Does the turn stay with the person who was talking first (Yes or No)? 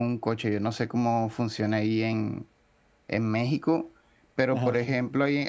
Yes